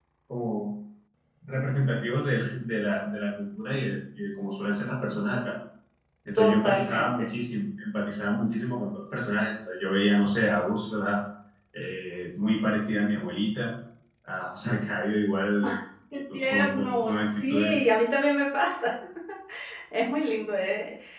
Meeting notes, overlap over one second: present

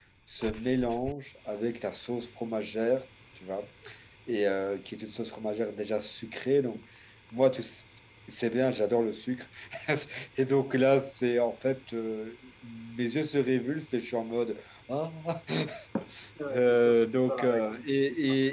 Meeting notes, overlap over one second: present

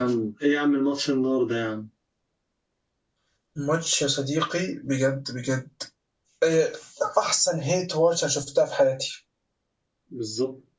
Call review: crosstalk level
none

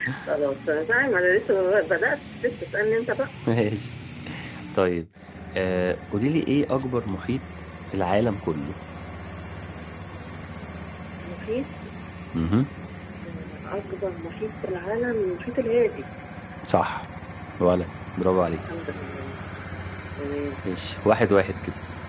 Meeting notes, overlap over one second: none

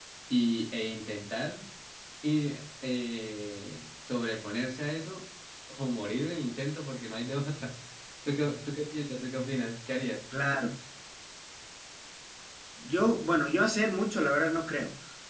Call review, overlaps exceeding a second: none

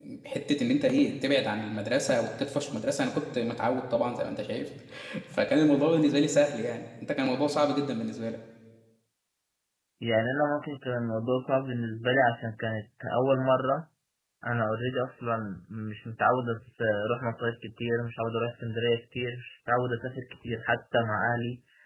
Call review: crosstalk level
none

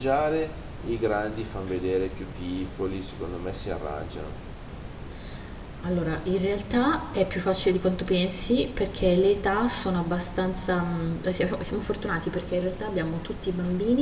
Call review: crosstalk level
none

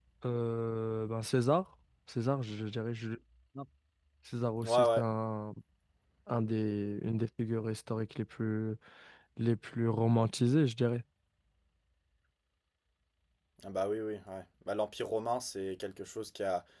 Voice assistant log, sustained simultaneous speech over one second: none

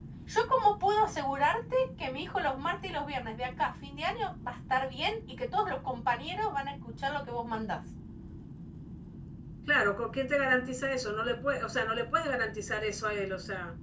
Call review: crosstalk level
none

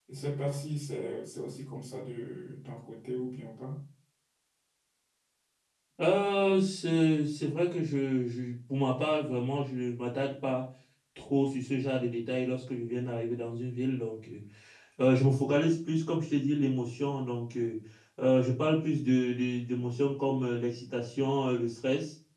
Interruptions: none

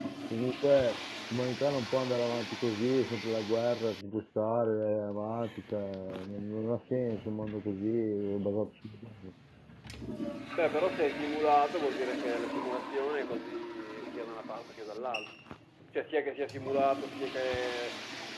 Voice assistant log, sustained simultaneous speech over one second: none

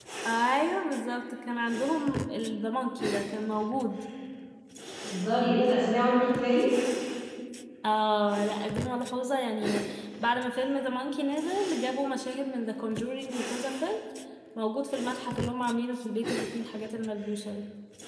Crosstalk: none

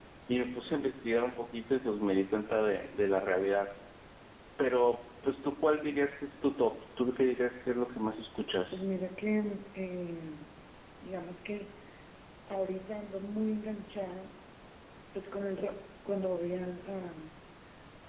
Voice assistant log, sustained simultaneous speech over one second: none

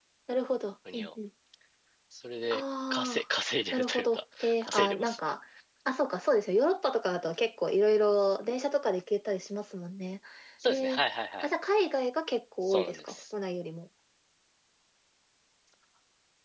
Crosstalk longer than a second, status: present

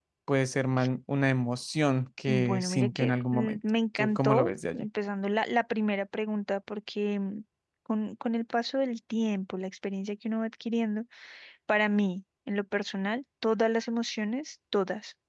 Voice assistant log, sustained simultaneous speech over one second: present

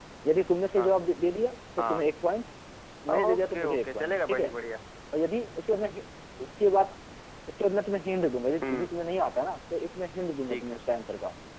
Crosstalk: present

